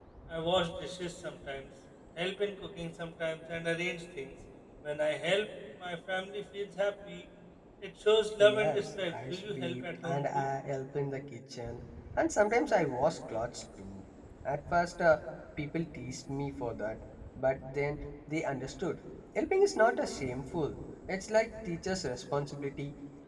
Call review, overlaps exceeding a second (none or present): present